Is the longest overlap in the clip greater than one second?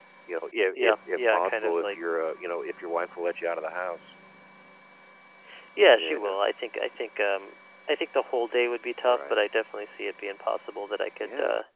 Yes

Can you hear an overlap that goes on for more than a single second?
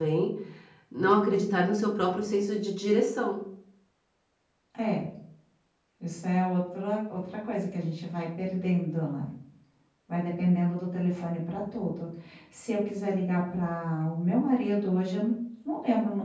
No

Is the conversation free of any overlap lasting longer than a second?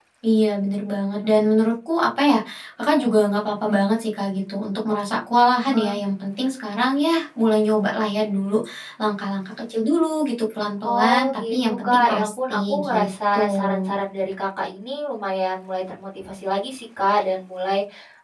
No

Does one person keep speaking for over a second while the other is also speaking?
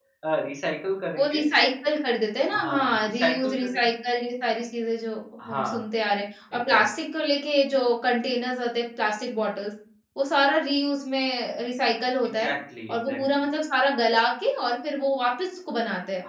Yes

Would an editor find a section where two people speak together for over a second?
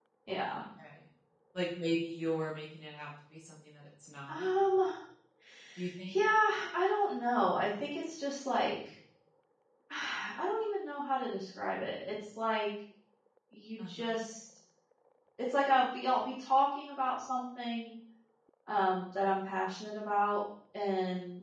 No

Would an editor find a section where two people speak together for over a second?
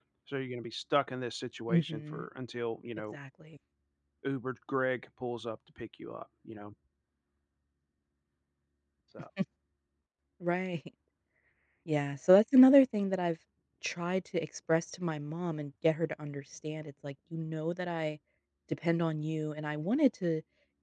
No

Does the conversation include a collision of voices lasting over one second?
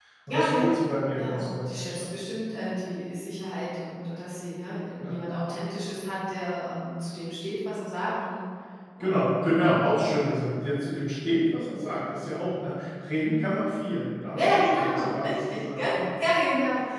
Yes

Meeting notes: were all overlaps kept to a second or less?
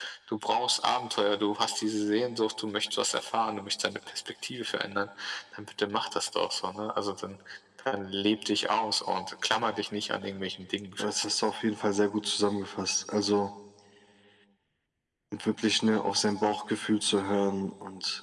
Yes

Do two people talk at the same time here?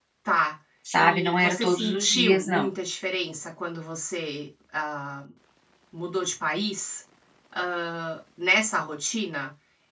Yes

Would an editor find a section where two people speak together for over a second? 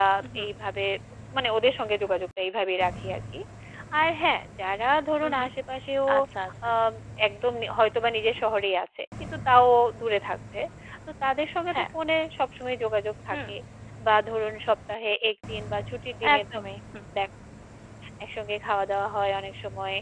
No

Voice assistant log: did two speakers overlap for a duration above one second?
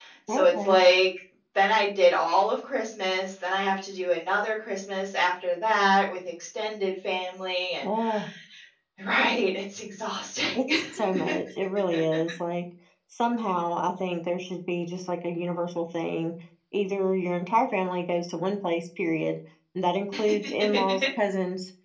No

